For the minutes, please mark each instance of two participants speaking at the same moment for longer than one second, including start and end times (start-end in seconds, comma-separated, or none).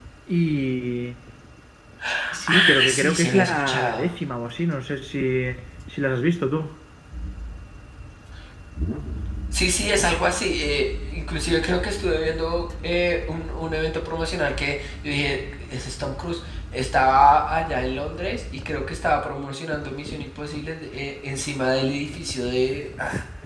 2.5-4.1